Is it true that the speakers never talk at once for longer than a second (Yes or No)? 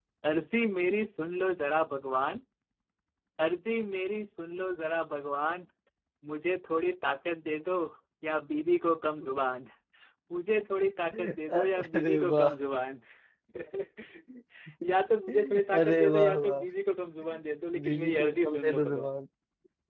No